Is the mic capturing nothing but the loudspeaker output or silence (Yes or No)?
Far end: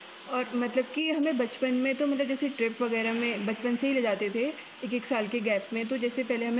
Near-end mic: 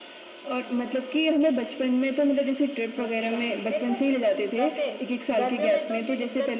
No